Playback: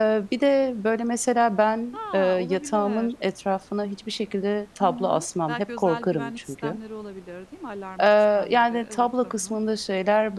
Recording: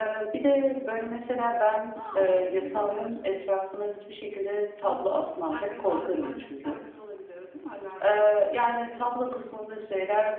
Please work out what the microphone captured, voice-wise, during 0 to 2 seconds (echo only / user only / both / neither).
echo only